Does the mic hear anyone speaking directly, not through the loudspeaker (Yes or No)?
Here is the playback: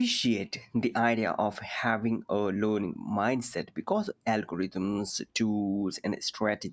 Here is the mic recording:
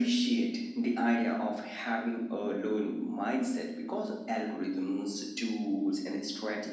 No